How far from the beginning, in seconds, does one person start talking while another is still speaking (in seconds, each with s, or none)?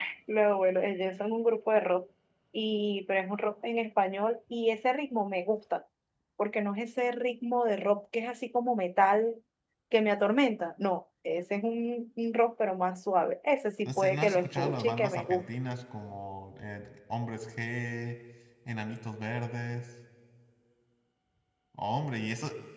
13.8 s